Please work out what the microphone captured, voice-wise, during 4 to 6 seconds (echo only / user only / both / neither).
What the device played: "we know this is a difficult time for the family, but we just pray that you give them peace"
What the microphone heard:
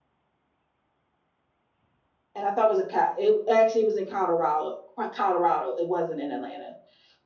user only